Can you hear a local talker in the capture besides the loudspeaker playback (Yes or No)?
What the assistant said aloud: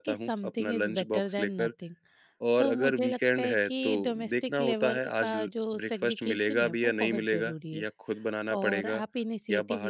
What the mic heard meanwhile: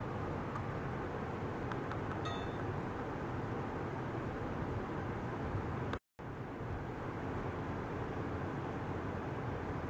No